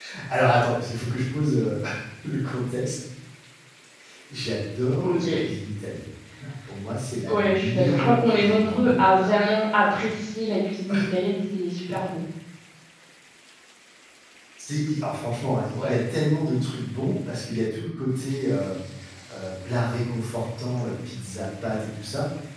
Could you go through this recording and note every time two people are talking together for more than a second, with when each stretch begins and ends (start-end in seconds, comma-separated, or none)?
7.3-9.1